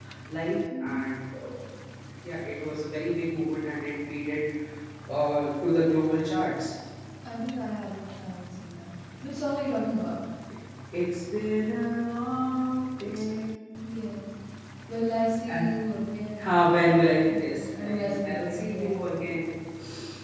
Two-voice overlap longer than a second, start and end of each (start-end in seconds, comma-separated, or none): 17.3-19.4